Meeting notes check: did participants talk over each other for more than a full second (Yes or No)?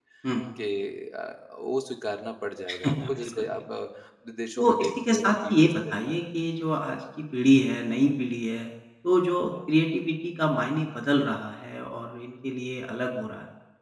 Yes